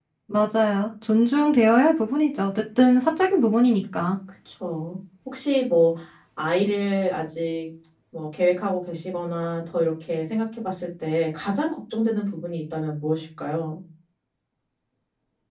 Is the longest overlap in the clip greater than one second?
No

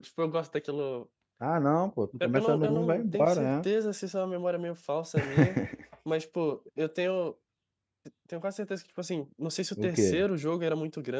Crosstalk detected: Yes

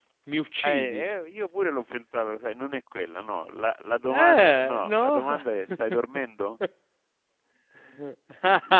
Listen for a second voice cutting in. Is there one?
Yes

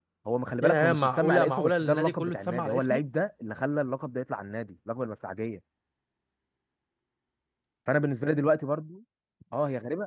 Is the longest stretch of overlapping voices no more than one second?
No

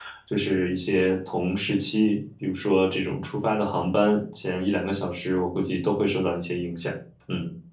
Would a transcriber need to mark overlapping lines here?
No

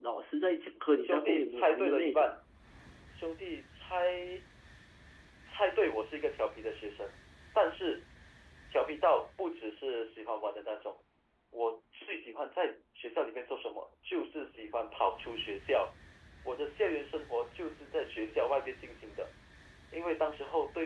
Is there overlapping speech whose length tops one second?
Yes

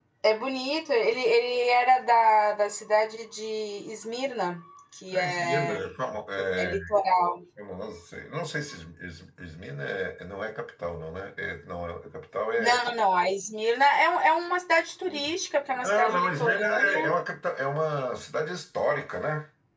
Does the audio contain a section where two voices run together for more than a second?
Yes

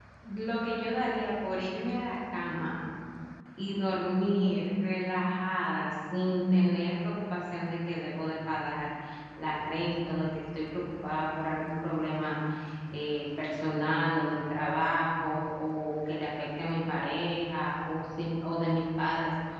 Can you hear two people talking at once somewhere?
No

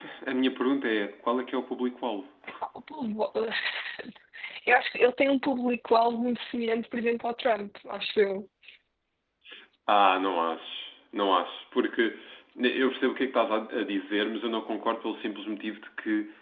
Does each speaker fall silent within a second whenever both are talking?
Yes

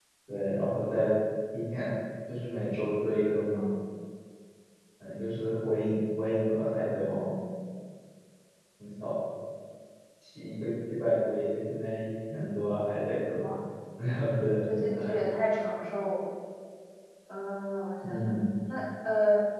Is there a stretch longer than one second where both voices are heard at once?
No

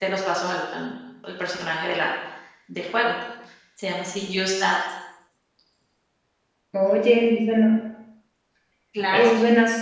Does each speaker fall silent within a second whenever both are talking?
Yes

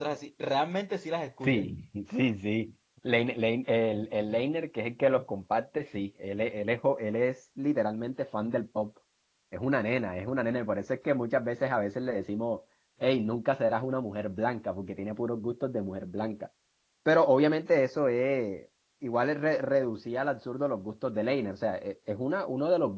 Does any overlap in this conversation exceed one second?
No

